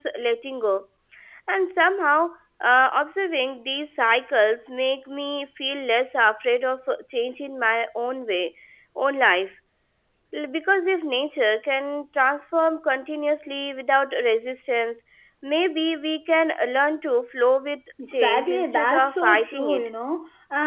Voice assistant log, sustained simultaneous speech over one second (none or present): present